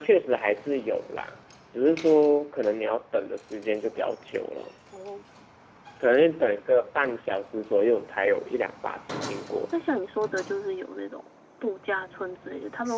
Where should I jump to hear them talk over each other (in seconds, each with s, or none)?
none